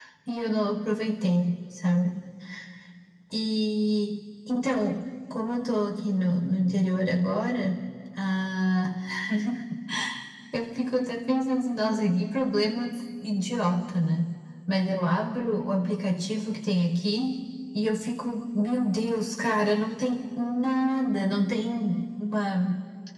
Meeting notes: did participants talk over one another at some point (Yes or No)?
No